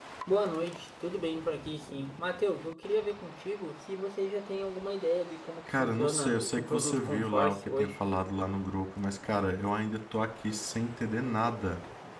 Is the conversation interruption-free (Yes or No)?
No